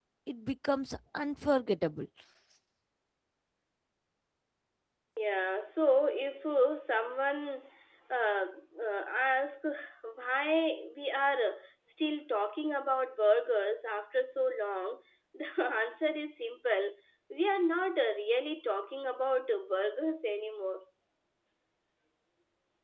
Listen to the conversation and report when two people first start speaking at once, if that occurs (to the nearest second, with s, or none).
none